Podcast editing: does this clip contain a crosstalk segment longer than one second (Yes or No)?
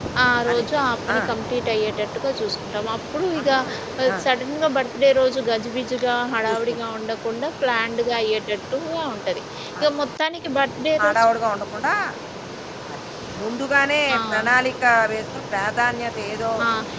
No